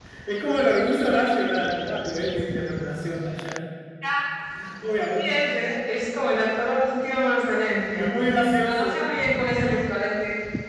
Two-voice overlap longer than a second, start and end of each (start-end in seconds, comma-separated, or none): none